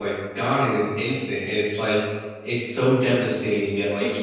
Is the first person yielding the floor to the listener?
No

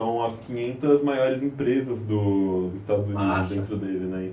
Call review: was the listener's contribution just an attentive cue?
Yes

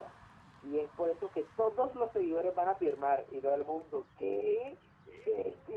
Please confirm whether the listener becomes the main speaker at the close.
No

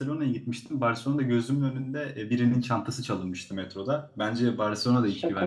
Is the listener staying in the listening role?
No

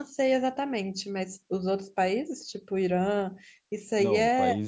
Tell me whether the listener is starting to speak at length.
Yes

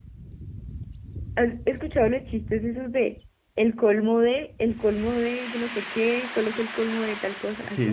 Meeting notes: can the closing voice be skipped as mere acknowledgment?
No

